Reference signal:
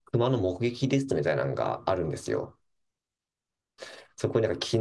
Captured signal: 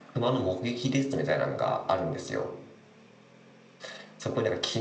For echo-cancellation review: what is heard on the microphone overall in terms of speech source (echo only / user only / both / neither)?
echo only